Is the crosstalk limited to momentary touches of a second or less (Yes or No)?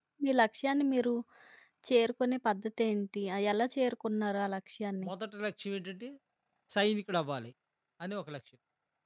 Yes